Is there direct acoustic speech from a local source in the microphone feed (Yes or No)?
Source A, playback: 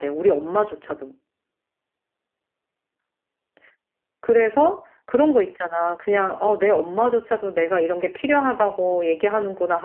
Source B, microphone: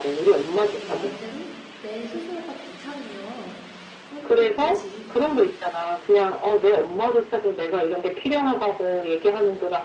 Yes